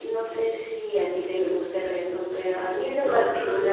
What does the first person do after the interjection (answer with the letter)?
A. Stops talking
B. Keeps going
A